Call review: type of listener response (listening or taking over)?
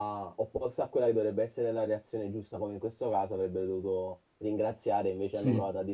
listening